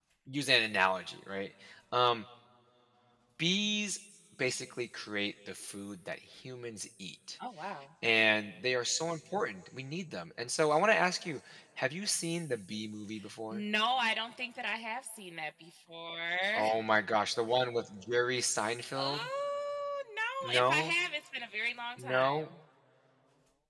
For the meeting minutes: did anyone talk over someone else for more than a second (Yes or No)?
No